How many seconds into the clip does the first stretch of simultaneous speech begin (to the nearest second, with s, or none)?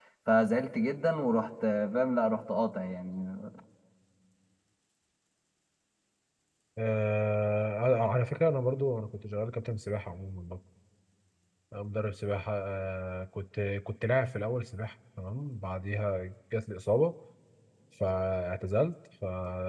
none